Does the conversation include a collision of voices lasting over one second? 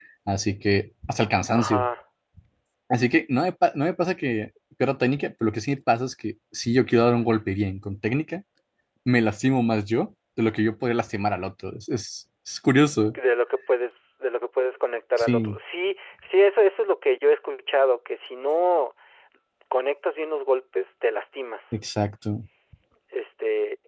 No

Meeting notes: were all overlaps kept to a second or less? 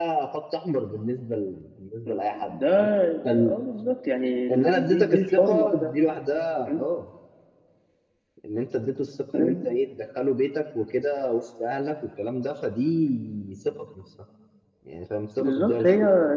No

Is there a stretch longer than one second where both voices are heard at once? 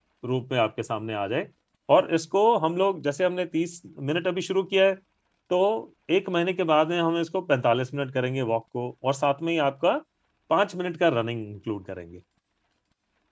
No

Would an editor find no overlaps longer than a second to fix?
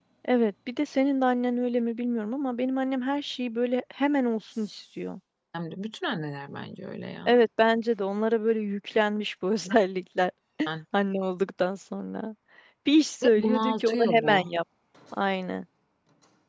No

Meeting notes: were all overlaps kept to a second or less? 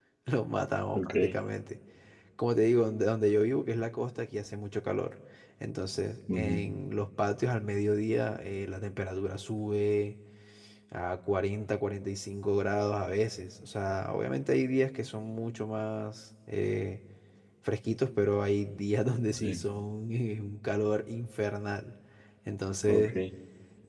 Yes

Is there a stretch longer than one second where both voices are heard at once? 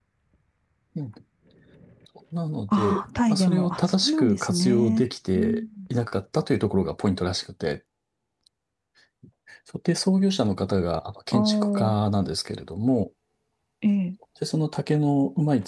Yes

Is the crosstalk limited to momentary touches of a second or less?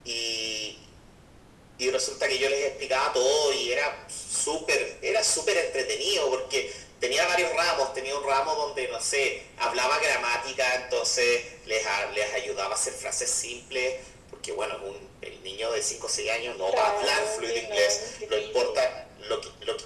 No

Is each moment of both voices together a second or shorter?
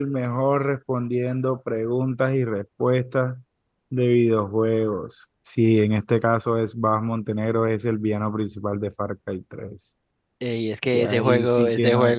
No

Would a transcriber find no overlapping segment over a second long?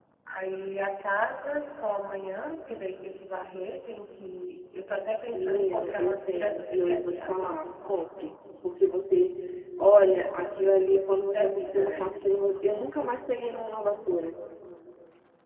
No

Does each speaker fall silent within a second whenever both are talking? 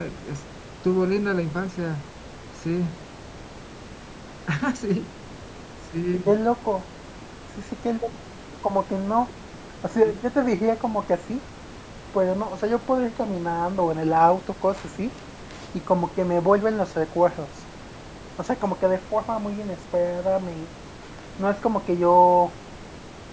Yes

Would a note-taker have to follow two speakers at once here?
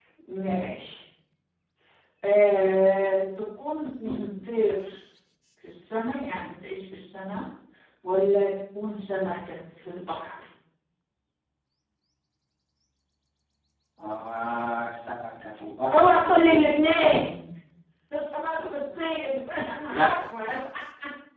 Yes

